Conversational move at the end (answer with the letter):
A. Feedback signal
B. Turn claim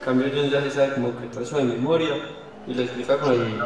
A